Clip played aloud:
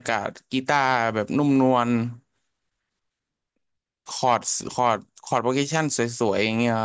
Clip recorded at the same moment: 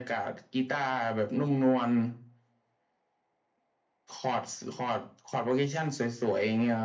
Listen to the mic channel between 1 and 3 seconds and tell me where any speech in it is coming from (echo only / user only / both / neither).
echo only